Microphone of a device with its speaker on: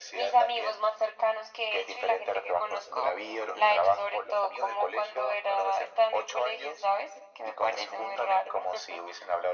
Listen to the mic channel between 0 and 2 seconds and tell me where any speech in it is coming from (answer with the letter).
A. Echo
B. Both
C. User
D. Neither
A